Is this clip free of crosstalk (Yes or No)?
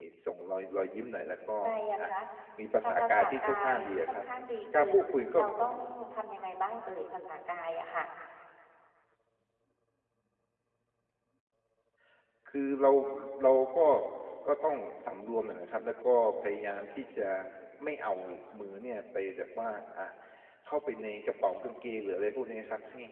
No